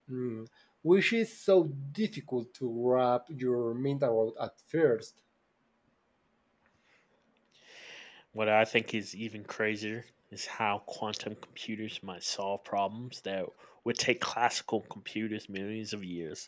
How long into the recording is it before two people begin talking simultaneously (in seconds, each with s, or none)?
none